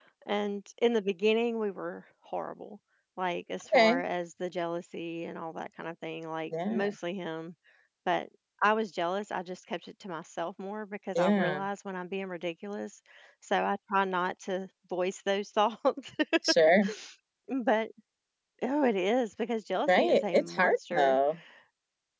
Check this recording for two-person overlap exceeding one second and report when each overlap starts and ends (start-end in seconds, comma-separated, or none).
19.9-21.2